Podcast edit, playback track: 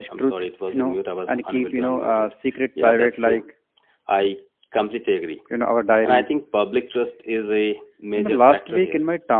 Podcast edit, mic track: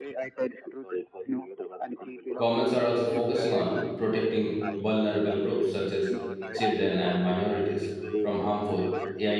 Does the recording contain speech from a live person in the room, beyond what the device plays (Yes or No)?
Yes